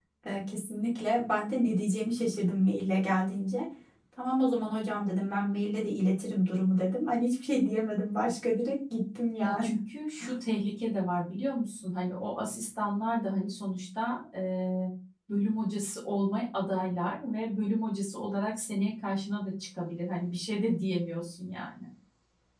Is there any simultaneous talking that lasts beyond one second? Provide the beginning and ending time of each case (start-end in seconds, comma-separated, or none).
none